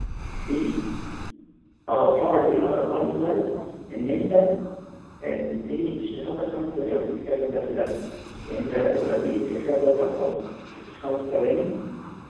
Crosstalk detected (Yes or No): Yes